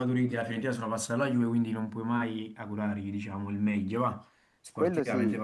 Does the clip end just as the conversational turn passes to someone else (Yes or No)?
Yes